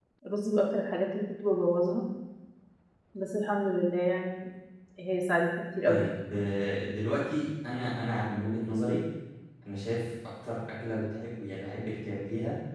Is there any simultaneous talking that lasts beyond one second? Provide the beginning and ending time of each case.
none

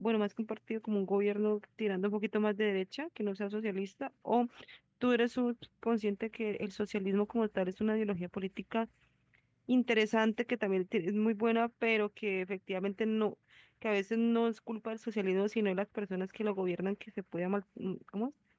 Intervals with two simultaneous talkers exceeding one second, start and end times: none

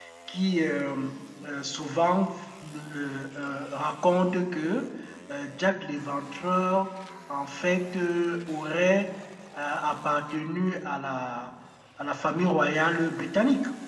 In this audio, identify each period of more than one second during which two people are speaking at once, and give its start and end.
none

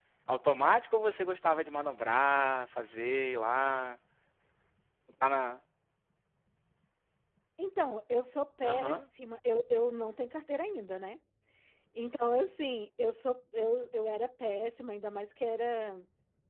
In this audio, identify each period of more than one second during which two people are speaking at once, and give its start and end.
none

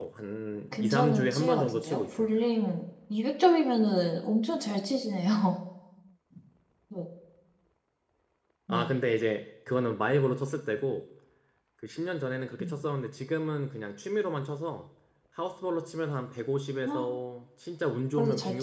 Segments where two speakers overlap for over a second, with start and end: 0.7-2.4

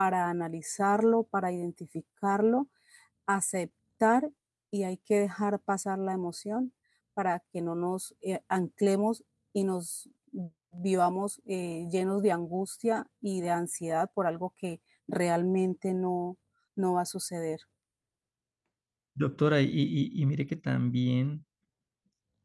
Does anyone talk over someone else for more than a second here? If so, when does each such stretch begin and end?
none

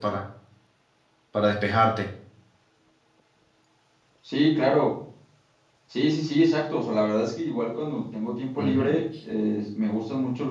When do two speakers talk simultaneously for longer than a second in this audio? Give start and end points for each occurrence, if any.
none

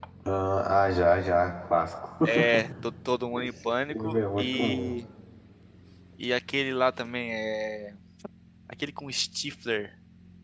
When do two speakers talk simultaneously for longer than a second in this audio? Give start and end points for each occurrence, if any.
3.4-5.0

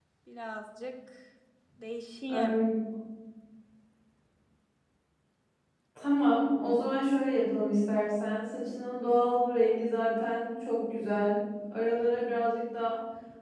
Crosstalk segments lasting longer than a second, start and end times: none

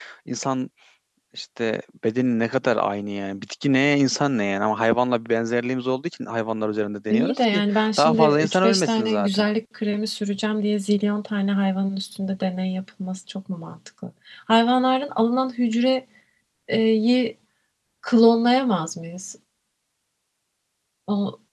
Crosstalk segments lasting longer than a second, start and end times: 7.1-9.4

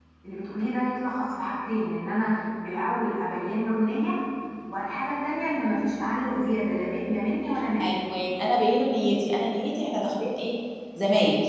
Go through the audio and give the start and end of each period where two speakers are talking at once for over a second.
none

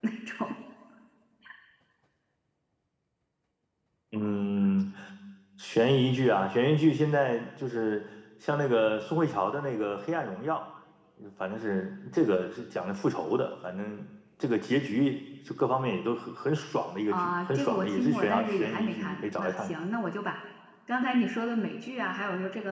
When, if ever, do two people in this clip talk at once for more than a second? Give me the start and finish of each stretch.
17.1-19.8

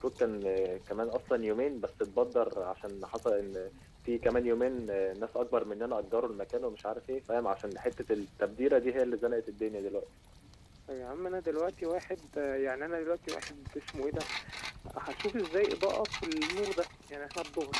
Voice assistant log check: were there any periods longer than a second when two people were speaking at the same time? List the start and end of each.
none

